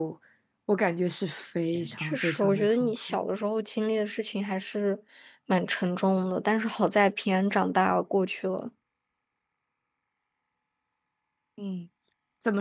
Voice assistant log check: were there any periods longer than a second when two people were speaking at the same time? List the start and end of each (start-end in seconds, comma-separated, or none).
2.0-3.2